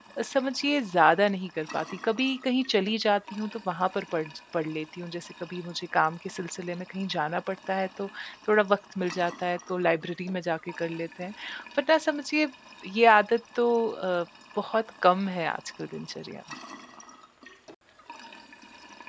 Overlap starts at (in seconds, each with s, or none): none